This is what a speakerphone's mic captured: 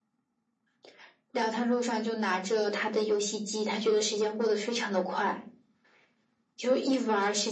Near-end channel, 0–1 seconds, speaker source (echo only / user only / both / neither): neither